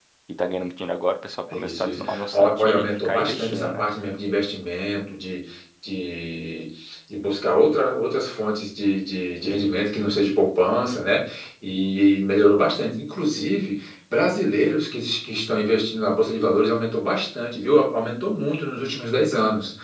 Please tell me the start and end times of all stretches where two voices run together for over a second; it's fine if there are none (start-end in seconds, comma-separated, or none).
1.5-3.8